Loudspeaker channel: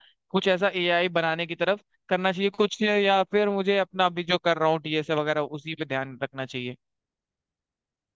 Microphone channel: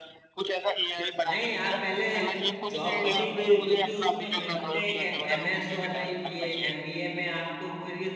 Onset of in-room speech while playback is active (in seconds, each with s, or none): 1.2 s